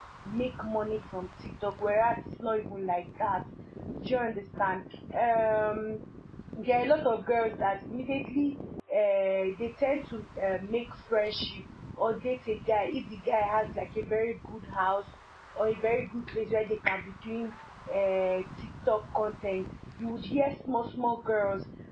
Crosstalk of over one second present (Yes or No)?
No